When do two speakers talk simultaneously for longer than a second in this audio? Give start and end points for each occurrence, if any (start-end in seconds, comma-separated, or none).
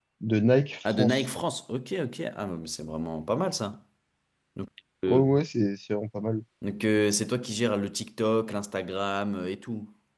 none